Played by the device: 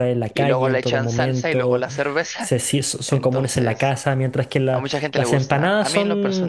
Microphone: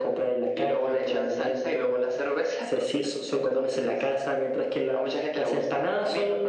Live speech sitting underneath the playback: Yes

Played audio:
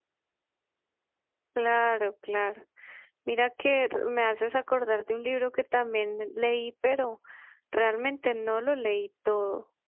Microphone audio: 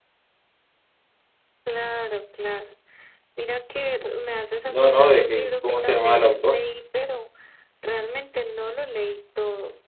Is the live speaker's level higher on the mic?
Yes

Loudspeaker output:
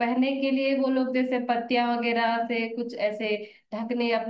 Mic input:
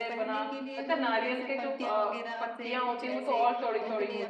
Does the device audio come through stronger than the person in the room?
No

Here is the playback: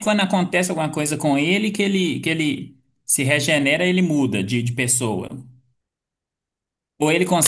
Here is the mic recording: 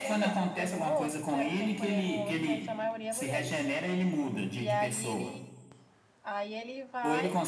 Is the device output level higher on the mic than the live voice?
Yes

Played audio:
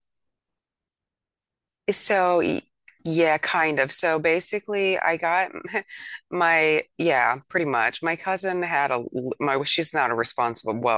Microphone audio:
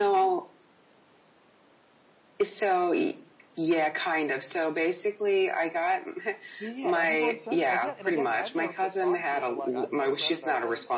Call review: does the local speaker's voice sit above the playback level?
No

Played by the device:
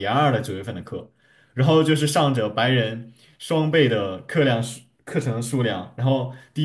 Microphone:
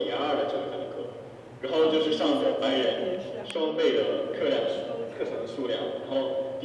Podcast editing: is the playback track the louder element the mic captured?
Yes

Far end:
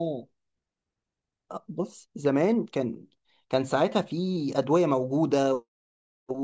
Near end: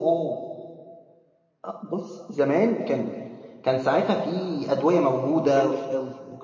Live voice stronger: No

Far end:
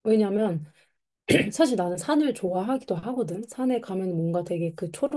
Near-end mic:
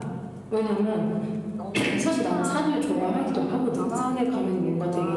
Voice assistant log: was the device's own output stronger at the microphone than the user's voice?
Yes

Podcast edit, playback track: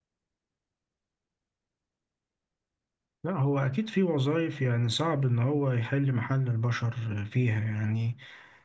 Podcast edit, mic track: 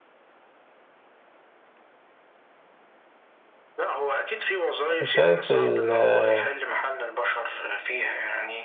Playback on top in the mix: No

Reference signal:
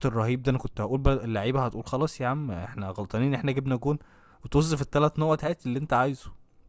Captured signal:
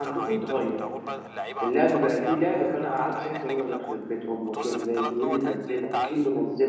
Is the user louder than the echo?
Yes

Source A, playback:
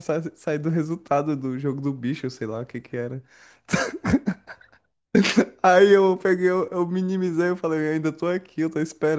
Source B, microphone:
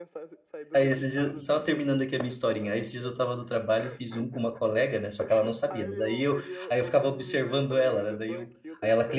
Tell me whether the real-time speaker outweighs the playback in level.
Yes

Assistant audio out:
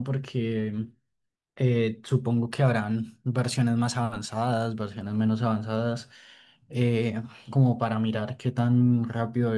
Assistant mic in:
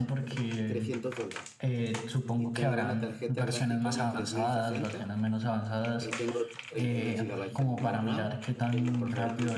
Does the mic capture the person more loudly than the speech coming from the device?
No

